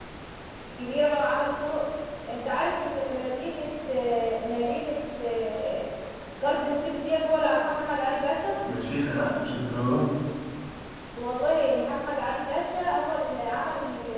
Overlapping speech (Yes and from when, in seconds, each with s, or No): No